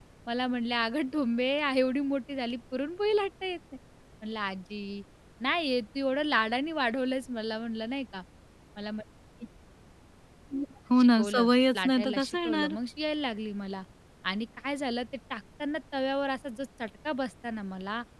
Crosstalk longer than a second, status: present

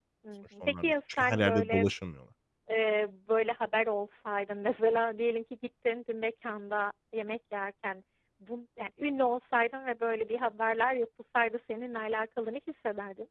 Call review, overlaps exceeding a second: present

